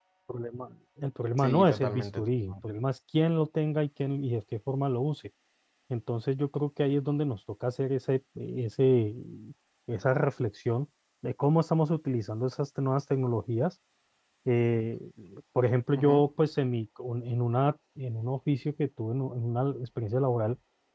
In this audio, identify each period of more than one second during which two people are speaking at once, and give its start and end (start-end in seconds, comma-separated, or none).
1.4-2.8